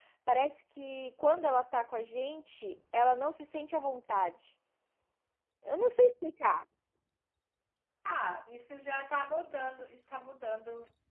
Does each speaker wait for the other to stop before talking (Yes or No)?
Yes